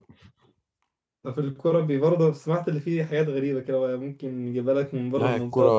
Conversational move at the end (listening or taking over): taking over